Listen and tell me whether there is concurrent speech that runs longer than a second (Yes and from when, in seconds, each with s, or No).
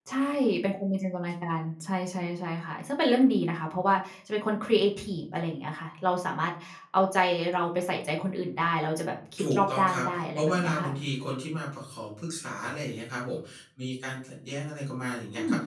Yes, from 9.4 s